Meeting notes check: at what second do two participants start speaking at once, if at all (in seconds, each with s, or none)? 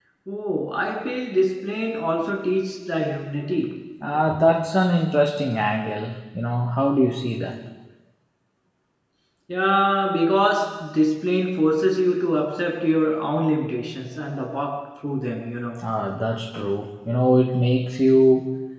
none